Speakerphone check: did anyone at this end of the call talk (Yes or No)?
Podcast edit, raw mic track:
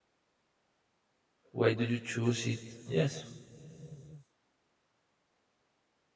Yes